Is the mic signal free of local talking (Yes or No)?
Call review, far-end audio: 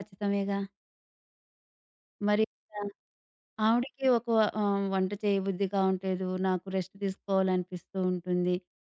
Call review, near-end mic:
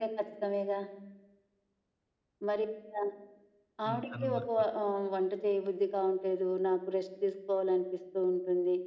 No